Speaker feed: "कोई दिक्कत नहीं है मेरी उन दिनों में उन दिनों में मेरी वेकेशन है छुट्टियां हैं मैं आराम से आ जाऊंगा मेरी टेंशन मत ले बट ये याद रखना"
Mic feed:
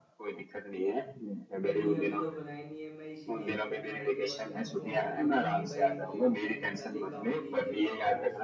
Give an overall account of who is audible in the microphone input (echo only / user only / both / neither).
both